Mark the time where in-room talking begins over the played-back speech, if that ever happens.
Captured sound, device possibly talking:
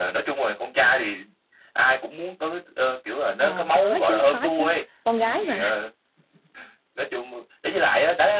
3.4 s

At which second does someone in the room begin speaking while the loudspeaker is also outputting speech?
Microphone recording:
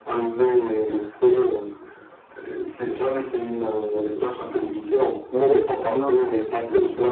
3.6 s

